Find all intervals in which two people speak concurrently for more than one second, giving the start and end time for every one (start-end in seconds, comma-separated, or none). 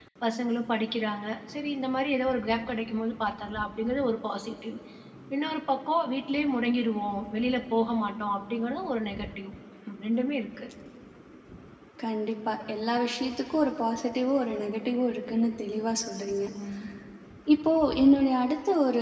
none